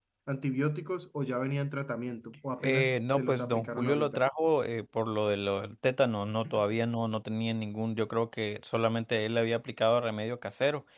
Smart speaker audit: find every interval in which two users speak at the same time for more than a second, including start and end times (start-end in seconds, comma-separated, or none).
2.6-4.2